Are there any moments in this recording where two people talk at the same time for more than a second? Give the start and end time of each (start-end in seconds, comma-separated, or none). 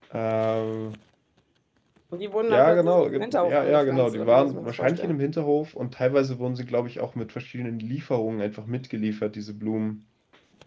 2.5-5.1